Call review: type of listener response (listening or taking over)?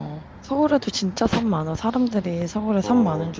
taking over